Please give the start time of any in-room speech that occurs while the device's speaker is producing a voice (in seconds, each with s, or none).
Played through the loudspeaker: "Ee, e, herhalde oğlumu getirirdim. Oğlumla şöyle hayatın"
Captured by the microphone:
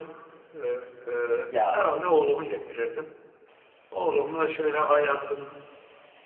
1.5 s